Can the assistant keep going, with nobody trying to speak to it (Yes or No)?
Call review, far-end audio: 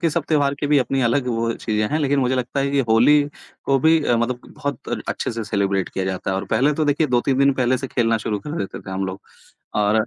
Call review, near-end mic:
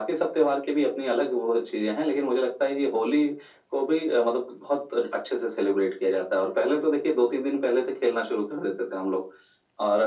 Yes